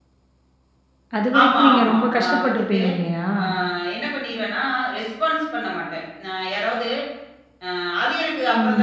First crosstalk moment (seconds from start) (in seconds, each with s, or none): 1.4 s